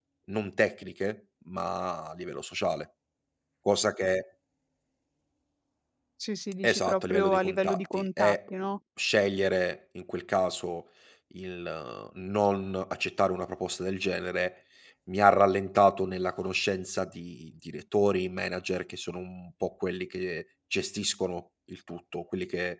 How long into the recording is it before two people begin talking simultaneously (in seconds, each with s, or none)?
6.6 s